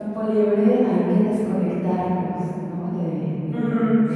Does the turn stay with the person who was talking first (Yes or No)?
No